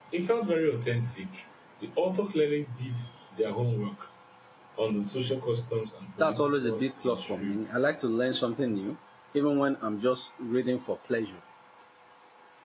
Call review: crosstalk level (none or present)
present